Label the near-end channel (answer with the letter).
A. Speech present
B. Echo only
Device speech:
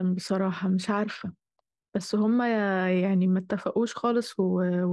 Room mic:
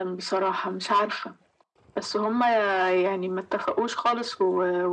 B